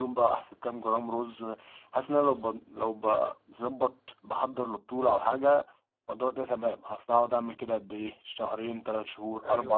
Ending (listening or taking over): listening